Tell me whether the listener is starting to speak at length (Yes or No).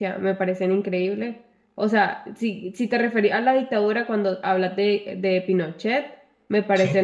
No